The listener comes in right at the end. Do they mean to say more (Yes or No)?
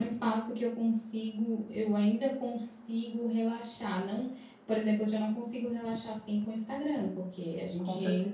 No